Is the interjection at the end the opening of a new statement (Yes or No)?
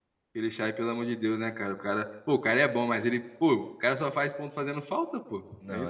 Yes